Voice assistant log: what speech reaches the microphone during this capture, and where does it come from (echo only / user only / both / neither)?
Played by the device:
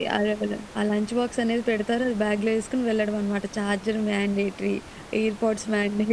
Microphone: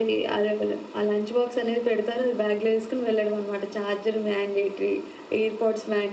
echo only